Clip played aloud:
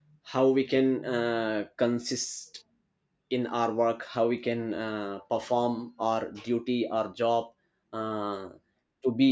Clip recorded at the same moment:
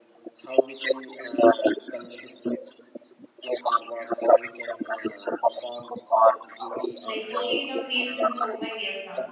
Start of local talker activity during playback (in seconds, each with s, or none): 7.0 s